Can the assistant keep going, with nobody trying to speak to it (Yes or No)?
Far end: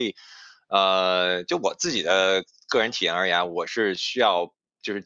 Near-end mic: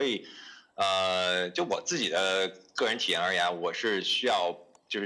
Yes